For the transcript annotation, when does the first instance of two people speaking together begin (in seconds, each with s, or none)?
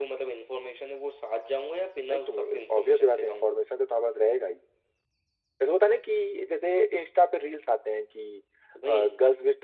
2.1 s